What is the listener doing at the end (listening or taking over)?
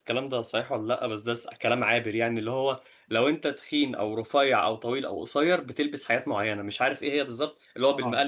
listening